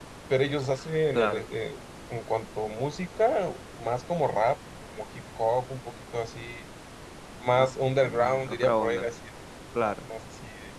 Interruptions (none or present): present